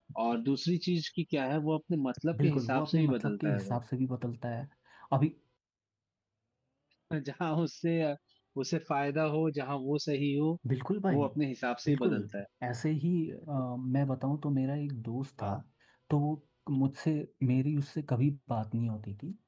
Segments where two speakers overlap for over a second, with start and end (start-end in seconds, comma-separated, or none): 2.4-3.8